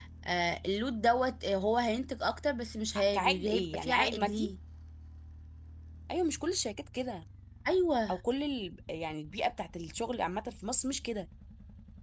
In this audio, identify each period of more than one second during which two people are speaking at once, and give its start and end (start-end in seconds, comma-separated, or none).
3.1-4.5